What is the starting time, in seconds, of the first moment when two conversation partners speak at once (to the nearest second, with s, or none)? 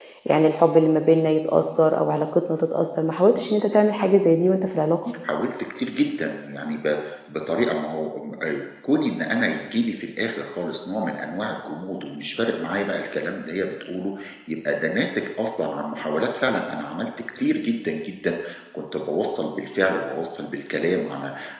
none